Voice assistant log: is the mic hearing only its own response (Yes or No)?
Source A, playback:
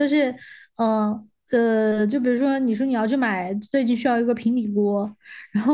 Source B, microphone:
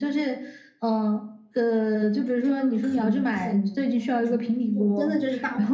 No